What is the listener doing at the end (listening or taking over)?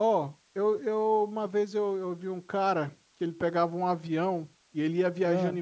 listening